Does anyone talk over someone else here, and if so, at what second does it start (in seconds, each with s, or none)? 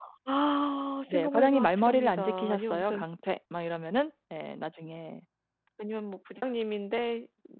1.1 s